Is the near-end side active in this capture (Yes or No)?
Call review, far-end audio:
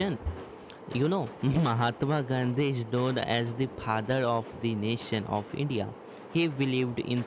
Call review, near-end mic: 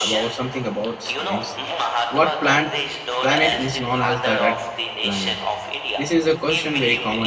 Yes